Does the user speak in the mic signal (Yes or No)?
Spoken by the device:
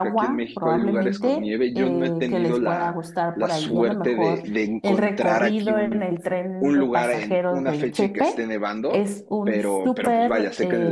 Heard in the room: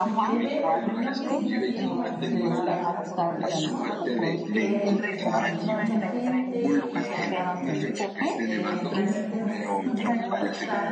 Yes